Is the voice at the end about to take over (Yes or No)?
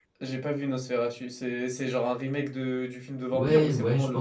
Yes